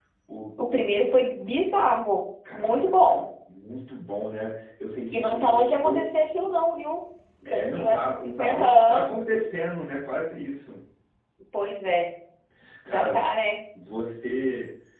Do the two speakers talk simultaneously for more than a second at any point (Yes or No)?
Yes